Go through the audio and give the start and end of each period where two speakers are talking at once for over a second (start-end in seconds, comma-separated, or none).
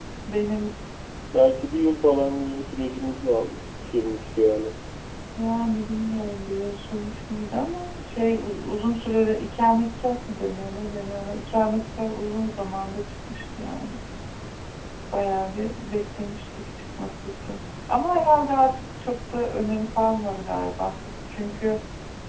none